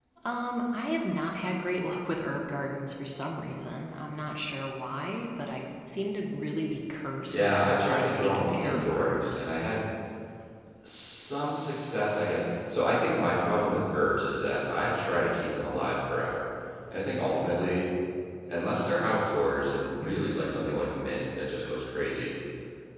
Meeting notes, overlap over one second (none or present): present